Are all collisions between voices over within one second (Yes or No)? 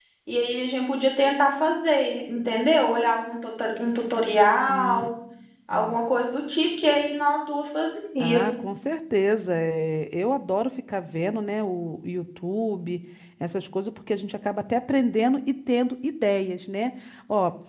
Yes